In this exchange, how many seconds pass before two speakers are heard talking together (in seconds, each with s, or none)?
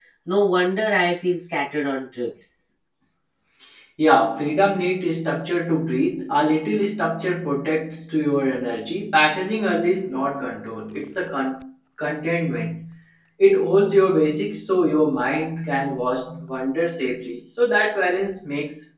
none